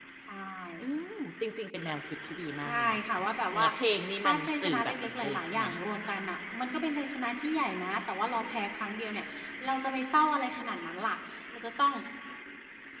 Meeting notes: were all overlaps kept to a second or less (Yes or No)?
No